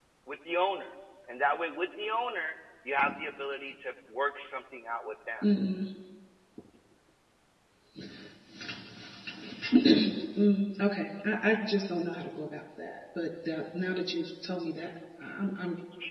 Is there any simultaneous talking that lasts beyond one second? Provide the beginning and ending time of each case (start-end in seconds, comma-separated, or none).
none